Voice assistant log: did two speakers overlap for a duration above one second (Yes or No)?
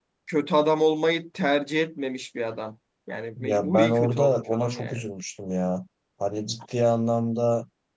Yes